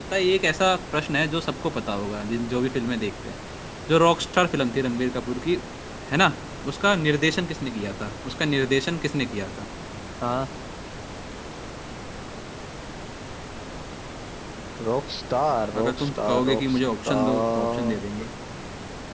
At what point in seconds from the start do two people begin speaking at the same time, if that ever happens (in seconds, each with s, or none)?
15.7 s